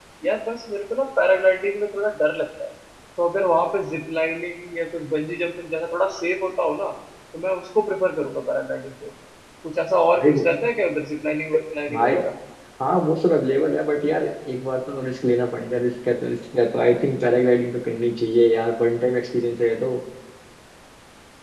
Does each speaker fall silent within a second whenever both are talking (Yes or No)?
Yes